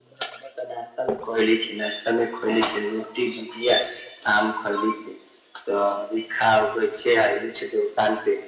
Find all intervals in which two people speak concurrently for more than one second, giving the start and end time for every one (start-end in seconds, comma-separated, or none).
none